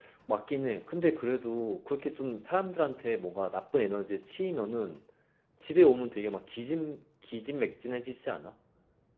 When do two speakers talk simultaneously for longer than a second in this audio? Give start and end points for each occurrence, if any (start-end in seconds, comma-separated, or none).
none